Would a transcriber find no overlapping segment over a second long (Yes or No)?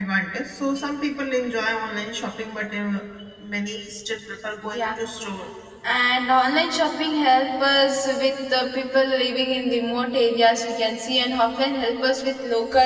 Yes